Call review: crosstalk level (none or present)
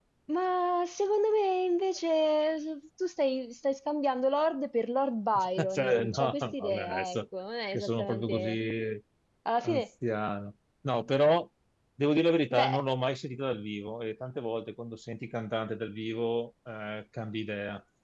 present